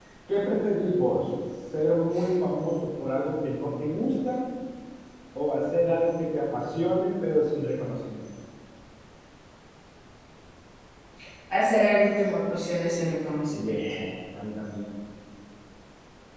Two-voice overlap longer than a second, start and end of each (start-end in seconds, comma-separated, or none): none